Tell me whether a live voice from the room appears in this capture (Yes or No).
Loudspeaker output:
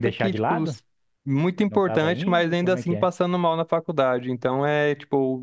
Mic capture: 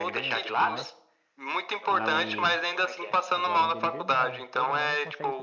Yes